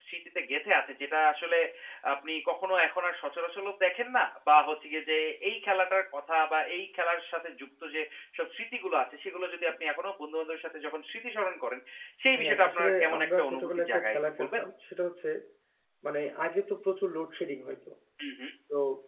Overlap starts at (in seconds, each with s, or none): 12.4 s